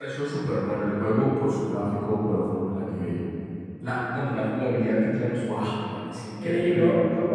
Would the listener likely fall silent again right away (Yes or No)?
No